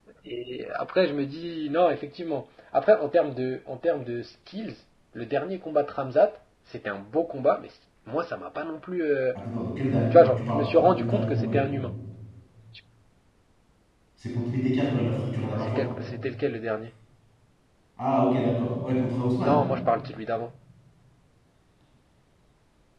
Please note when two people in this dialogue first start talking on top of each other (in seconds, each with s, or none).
10.1 s